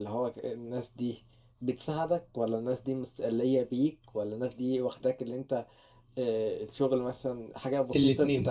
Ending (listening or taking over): taking over